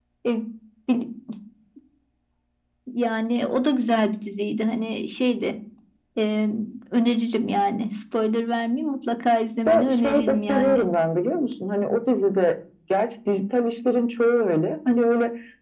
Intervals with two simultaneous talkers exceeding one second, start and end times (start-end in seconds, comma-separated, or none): 9.7-10.9